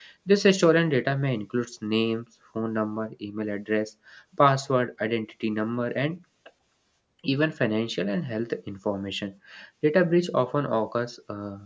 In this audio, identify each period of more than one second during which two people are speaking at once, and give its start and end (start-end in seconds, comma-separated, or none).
none